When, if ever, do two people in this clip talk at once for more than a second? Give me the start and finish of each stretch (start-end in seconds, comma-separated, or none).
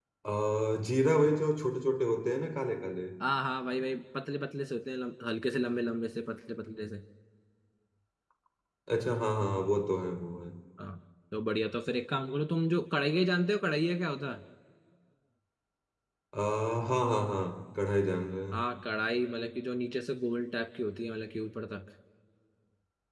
none